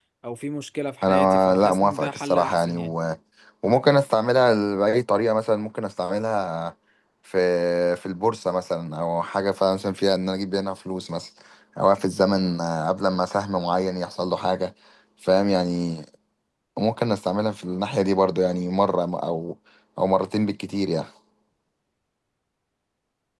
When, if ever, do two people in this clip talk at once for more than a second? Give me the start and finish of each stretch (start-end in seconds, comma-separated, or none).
1.0-2.9